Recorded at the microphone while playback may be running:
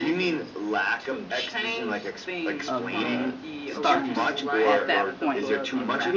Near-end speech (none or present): present